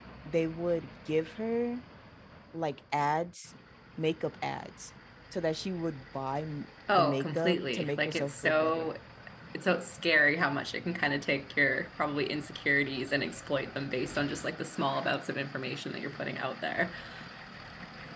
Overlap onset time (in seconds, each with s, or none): 6.9 s